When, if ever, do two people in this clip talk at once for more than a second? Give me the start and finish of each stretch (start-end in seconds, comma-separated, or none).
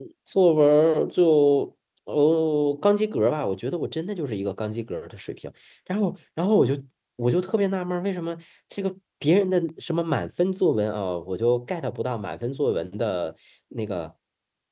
none